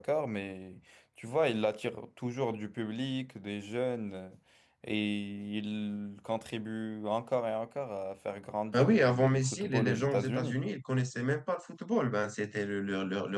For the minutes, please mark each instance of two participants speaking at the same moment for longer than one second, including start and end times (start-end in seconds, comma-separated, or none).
8.8-10.6